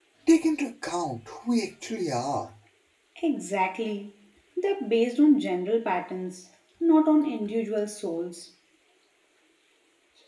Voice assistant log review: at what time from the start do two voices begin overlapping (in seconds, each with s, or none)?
none